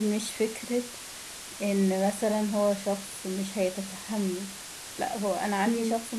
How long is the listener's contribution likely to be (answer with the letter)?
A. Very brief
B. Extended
A